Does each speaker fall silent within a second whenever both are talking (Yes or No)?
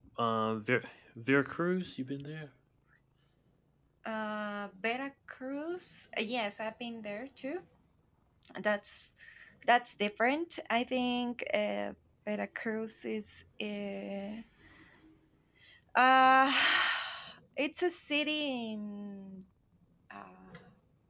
Yes